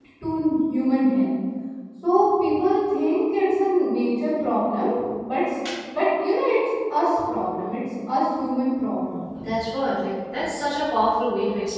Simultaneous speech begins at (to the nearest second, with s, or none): none